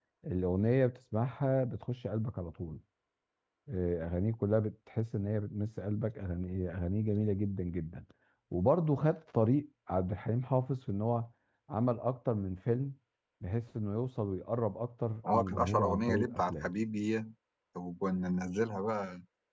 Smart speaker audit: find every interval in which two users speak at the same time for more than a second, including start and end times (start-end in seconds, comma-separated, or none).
15.5-16.7